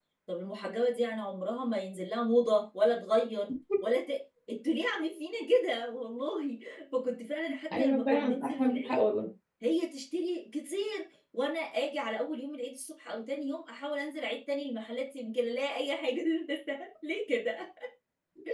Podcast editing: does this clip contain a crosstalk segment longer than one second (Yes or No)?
Yes